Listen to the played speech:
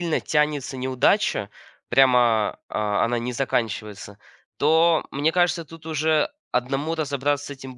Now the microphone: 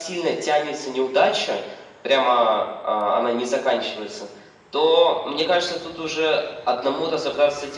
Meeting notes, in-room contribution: none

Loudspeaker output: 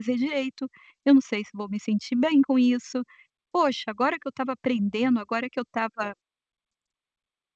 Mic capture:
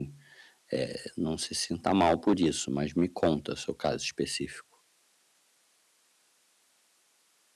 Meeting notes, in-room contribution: present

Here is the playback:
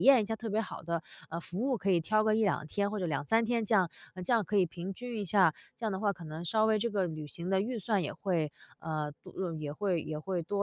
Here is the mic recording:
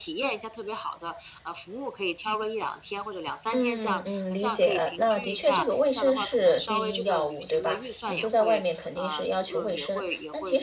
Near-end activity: present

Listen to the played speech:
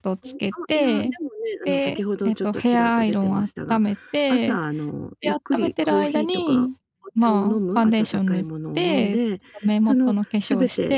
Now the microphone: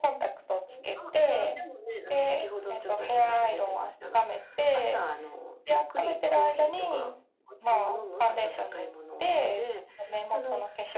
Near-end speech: none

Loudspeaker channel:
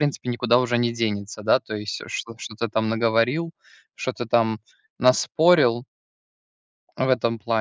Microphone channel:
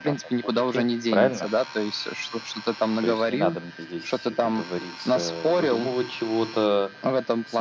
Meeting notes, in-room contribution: present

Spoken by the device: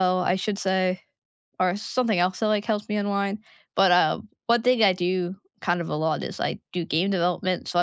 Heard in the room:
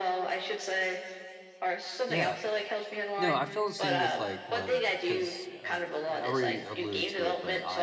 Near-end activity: present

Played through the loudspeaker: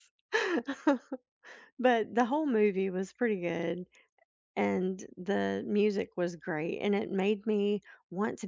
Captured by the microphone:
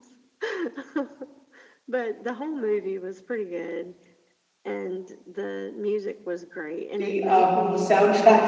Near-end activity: present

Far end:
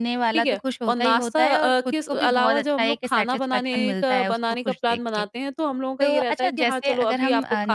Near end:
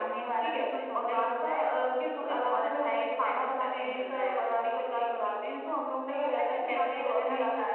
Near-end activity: none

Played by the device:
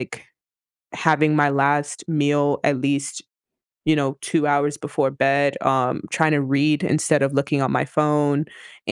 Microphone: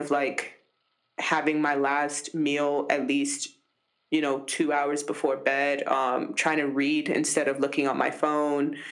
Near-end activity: none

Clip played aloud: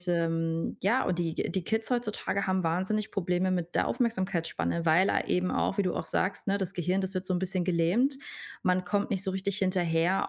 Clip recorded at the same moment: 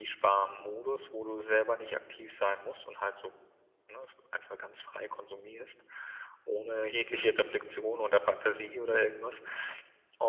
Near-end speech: present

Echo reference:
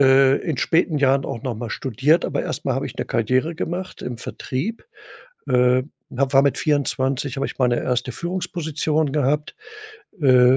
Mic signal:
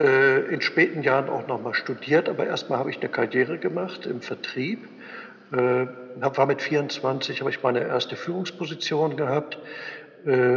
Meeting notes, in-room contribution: none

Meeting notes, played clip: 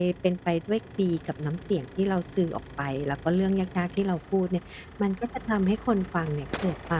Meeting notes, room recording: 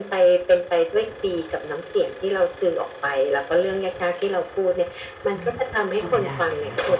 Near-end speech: present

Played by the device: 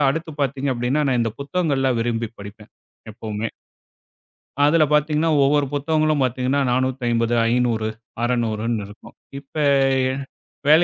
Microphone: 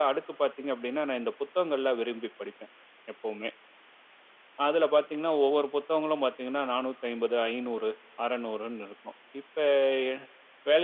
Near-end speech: none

